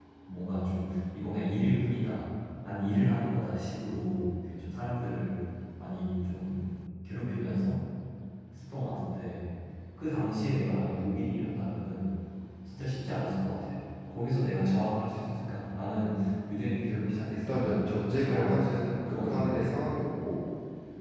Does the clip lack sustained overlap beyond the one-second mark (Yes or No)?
No